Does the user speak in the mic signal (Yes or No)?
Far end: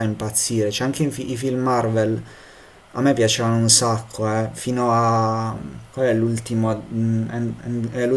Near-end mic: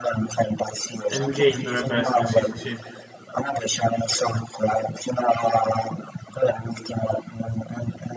Yes